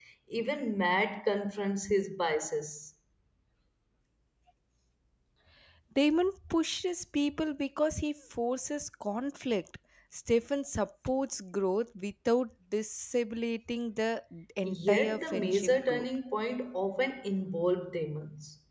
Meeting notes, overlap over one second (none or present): present